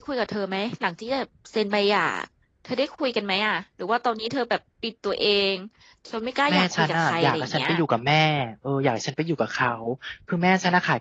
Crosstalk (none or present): present